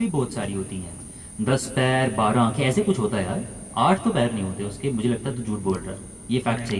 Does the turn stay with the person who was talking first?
No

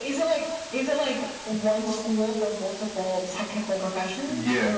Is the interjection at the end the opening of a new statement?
Yes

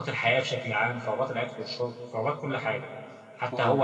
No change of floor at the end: Yes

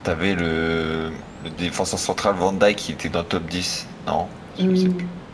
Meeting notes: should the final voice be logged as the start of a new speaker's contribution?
Yes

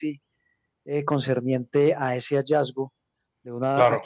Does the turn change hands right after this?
No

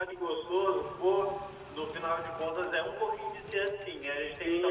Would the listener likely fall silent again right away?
No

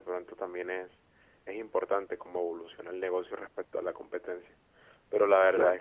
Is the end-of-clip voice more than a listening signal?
No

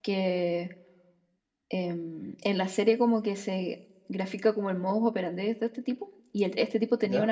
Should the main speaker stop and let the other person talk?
No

